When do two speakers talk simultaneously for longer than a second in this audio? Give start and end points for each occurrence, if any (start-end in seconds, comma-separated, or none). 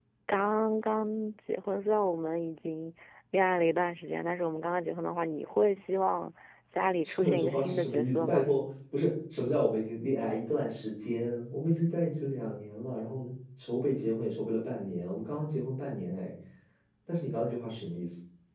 7.2-8.5